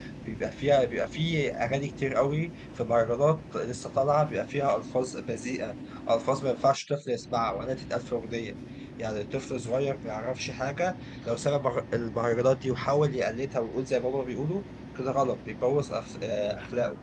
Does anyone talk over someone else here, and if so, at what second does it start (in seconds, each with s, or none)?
none